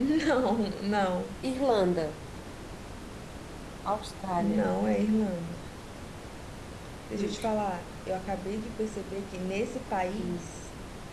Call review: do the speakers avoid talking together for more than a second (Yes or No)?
Yes